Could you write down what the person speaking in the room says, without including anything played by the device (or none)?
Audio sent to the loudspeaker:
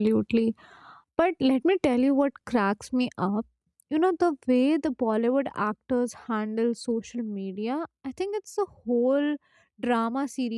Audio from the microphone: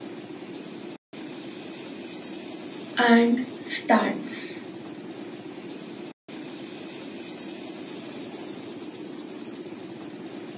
and stunts.